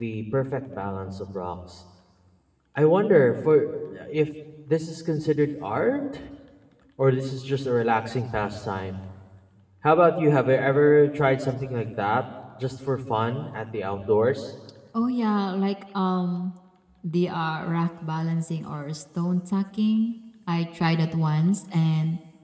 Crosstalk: none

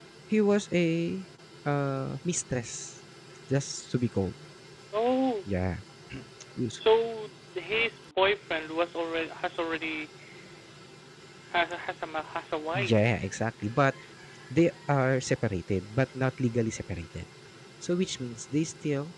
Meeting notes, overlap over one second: none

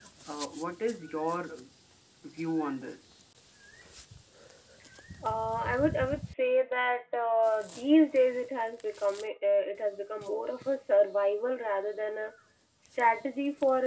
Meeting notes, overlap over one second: none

